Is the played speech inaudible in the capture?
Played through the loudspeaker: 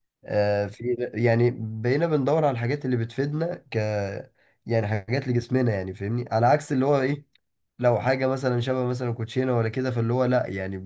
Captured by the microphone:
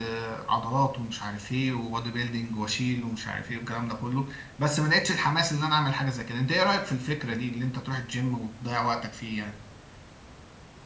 Yes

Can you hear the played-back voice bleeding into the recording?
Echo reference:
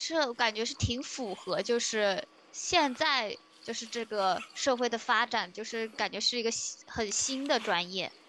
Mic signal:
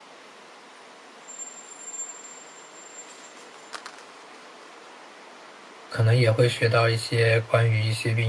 No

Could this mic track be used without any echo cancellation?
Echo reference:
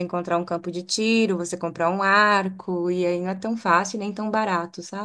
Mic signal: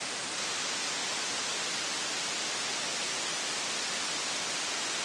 Yes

